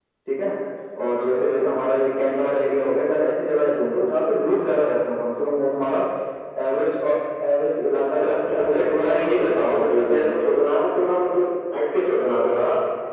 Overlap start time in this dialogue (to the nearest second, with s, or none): 8 s